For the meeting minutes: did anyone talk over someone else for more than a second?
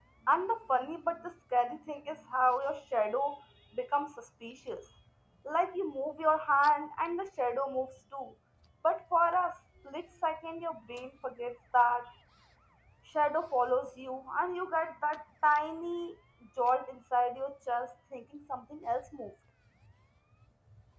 No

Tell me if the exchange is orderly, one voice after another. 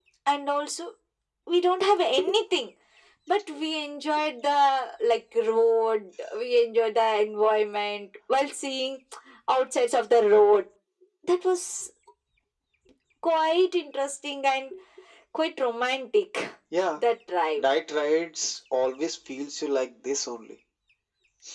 Yes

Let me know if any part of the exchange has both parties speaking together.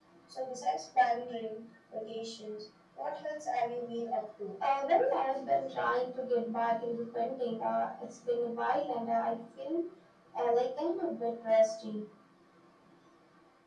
No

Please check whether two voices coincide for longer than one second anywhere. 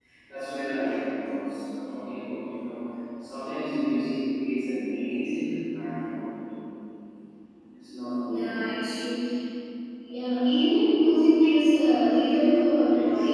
No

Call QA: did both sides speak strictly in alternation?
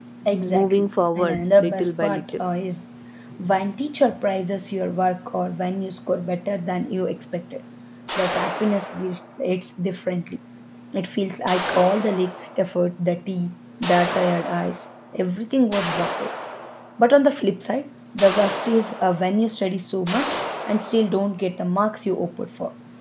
No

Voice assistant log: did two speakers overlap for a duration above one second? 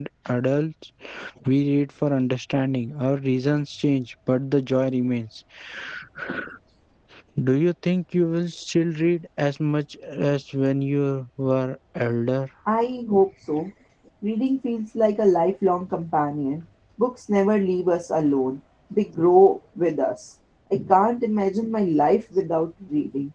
No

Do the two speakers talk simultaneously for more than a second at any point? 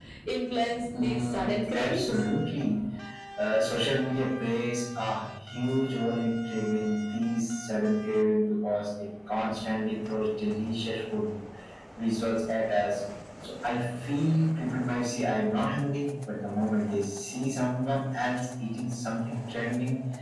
Yes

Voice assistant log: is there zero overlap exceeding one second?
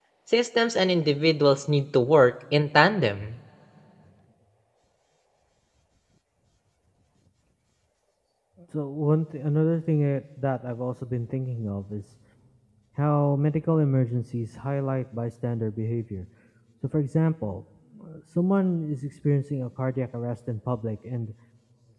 Yes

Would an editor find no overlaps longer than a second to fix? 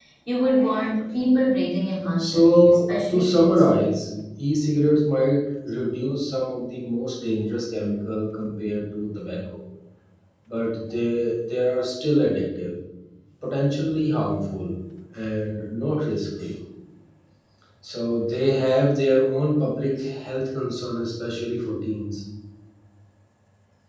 No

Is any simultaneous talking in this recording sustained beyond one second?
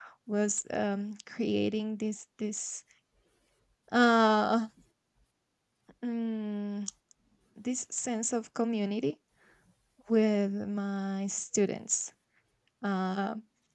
No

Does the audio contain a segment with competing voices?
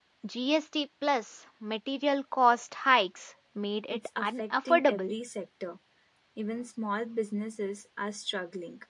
Yes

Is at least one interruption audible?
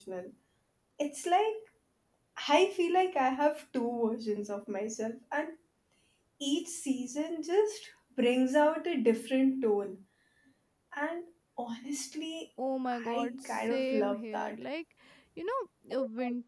Yes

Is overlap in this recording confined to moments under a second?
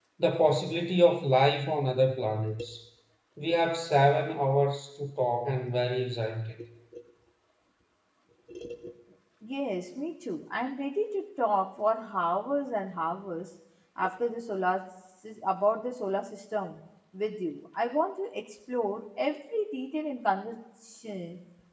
Yes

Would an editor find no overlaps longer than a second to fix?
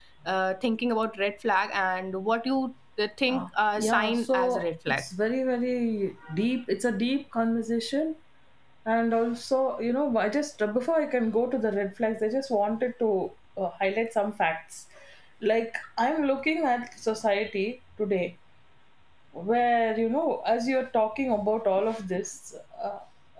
No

